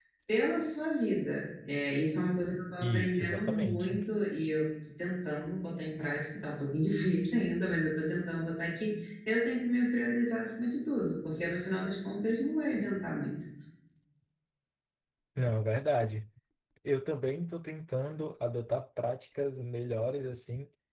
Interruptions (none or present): present